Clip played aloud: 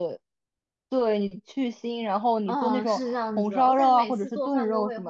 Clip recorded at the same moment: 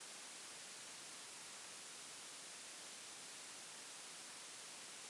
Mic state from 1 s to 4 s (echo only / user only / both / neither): neither